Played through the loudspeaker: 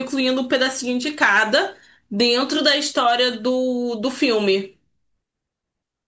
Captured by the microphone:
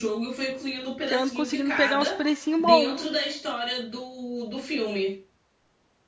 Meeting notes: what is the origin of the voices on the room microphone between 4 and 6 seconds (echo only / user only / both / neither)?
echo only